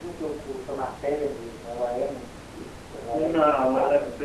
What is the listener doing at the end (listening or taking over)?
taking over